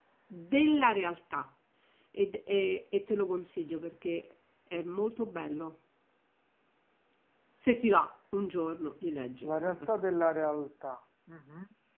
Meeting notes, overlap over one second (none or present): none